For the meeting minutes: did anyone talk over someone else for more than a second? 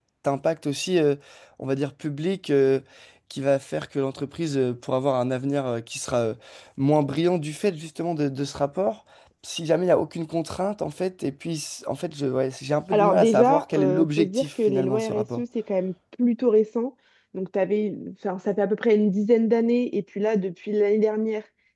Yes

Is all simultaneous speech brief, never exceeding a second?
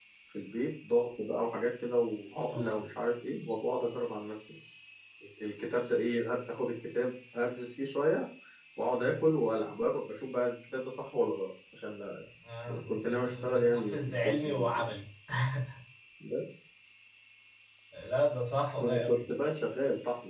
No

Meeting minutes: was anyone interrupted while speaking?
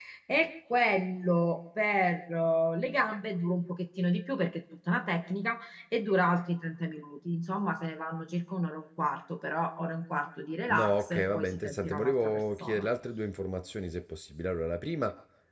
Yes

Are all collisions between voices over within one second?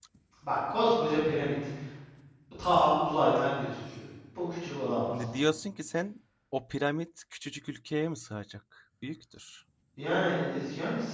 Yes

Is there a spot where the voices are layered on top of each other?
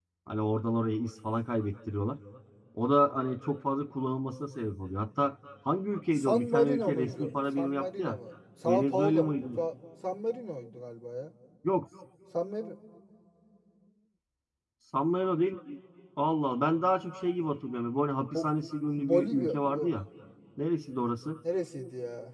Yes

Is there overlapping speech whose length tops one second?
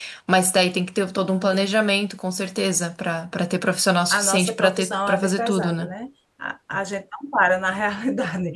Yes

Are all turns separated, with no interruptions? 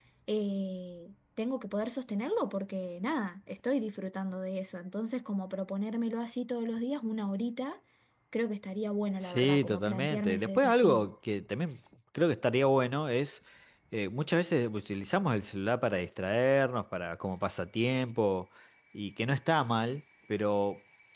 No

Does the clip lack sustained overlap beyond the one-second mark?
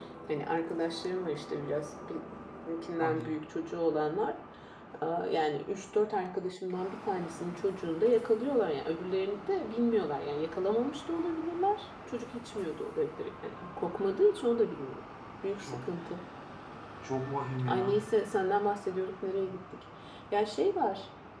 Yes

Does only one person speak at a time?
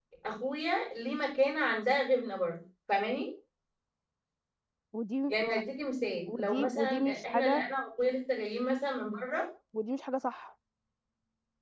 No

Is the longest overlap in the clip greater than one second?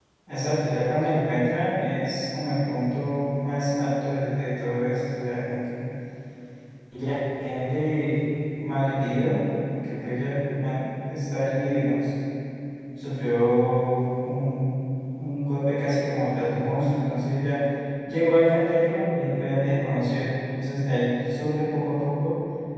No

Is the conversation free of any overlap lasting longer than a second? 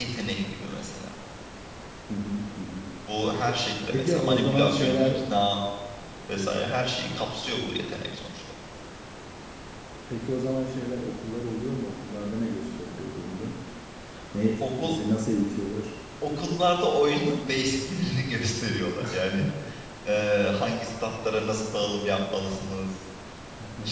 No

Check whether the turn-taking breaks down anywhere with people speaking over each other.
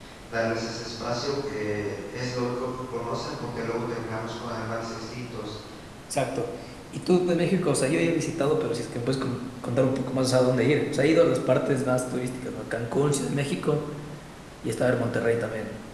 No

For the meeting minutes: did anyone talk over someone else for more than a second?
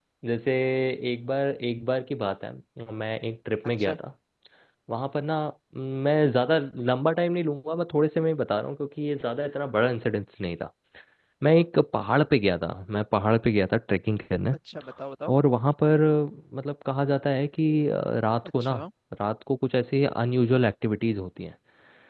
No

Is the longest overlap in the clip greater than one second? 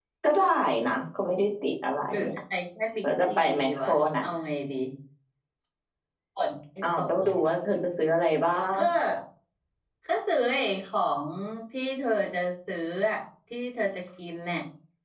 Yes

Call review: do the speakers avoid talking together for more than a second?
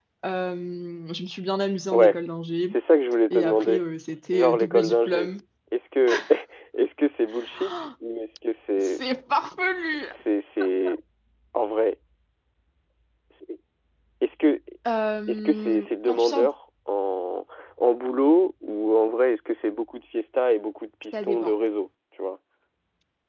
No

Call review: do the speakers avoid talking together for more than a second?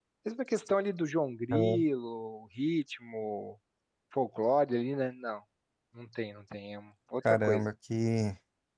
Yes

